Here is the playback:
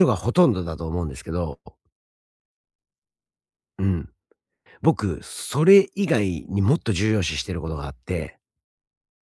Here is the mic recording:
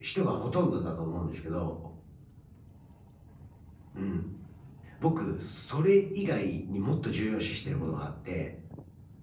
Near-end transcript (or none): うん。